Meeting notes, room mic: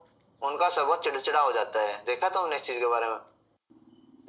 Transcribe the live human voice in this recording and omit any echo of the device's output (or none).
none